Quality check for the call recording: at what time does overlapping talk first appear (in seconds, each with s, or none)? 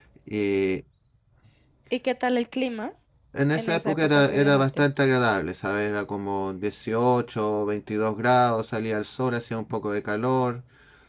3.5 s